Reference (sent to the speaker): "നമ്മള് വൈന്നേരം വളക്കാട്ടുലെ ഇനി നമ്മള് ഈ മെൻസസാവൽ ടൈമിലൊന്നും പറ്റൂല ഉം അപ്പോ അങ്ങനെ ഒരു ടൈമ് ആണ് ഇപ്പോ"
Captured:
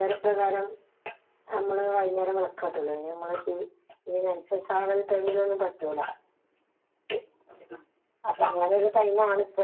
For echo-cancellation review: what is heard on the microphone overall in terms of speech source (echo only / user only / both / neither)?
echo only